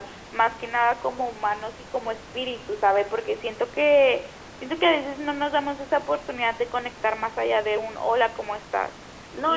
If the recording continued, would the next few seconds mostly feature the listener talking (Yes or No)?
Yes